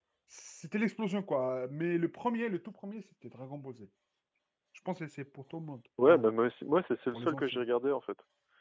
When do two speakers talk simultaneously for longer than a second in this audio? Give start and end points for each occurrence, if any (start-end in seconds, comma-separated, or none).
none